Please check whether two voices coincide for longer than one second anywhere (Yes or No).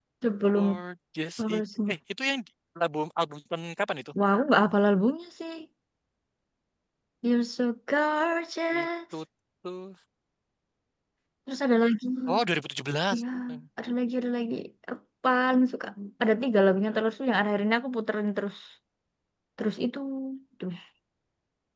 No